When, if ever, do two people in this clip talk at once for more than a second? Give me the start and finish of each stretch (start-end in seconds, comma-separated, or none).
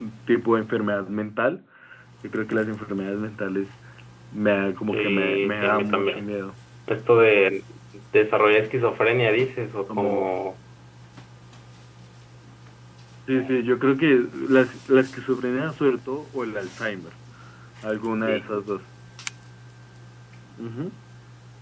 4.9-6.2